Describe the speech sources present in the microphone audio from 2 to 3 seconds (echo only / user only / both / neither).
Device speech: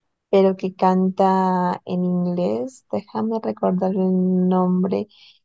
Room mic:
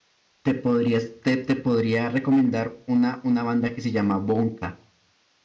user only